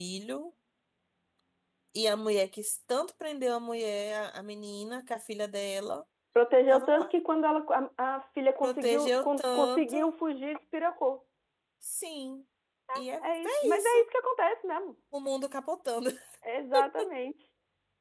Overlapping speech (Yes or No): Yes